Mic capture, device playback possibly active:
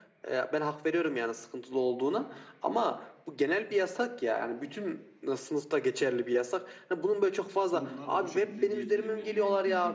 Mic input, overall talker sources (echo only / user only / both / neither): both